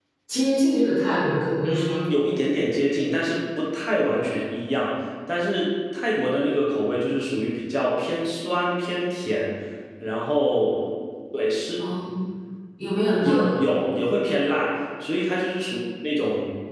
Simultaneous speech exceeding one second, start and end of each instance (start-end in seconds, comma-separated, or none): none